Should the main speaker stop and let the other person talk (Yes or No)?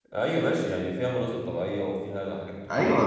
Yes